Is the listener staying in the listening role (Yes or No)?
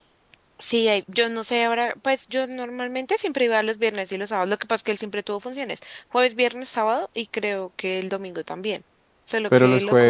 No